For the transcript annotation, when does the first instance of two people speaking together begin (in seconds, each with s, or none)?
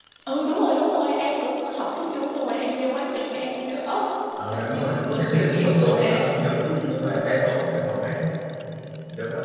4.5 s